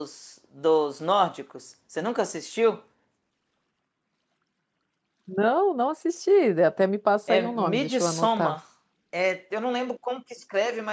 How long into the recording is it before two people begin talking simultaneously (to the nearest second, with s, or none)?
7 s